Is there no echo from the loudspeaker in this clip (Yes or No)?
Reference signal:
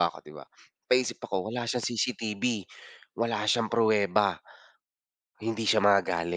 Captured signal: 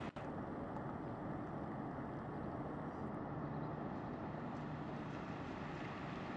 Yes